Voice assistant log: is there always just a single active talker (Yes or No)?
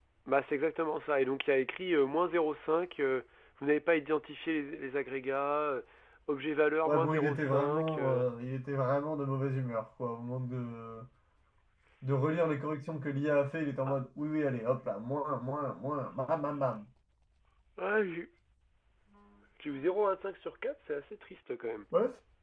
No